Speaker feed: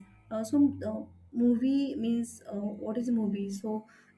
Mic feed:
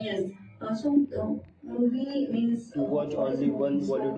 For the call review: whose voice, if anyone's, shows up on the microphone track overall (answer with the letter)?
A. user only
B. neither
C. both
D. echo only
C